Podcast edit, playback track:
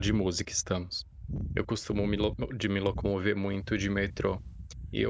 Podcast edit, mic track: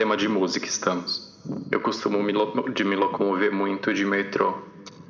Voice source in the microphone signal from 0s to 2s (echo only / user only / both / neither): echo only